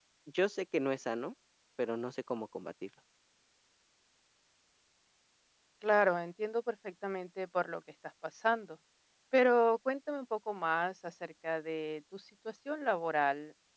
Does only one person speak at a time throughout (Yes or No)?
Yes